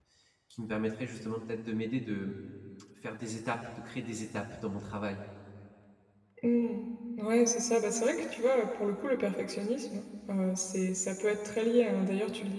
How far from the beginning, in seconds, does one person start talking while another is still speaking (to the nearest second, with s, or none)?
none